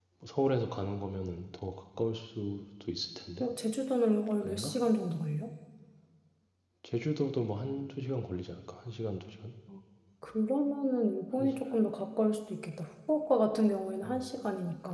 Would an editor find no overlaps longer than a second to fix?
Yes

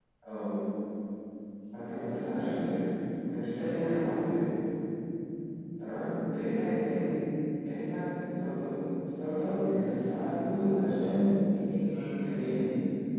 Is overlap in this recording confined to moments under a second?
Yes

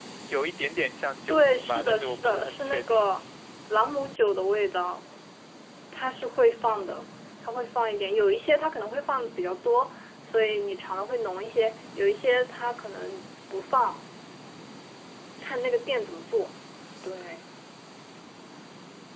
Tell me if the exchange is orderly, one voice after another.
No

